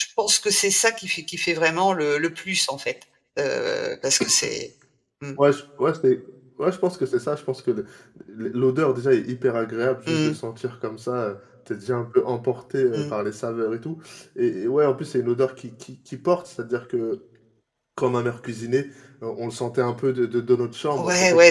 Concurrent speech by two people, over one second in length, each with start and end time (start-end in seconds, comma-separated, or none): none